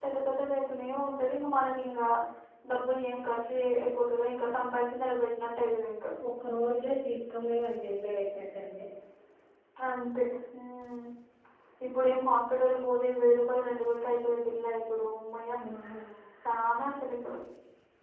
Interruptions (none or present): none